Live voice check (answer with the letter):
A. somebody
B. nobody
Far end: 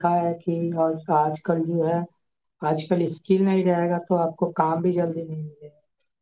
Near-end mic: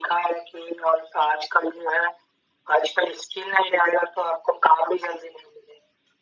B